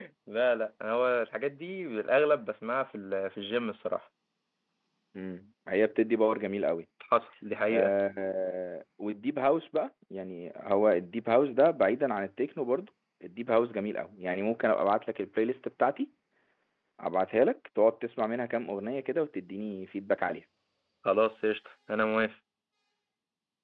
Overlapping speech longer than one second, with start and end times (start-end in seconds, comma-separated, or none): none